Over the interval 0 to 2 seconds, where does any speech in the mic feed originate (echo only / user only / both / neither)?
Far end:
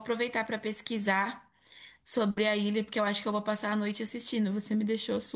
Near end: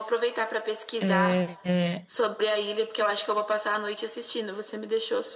both